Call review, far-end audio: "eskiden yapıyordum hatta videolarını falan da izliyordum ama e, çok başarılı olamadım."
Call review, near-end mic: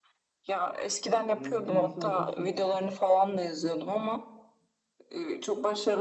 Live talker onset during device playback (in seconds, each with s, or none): 1.2 s